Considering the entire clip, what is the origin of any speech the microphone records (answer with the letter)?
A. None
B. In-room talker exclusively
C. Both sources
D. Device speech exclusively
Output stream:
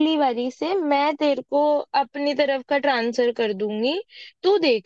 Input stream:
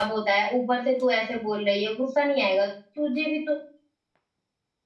B